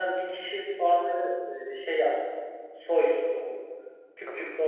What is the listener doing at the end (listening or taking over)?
listening